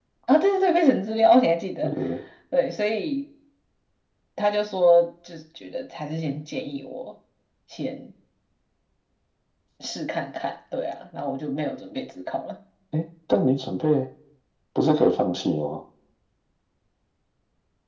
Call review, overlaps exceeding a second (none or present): none